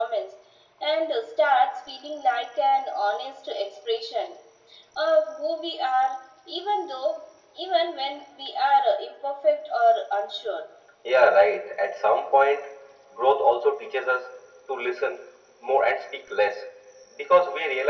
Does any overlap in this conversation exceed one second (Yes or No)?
No